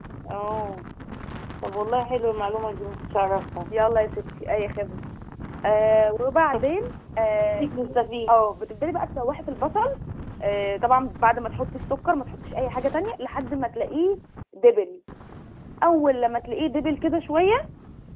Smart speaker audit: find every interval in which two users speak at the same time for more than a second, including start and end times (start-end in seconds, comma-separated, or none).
none